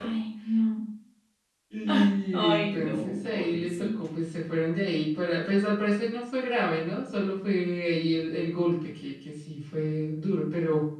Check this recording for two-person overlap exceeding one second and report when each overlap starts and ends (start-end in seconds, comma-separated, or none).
2.3-3.9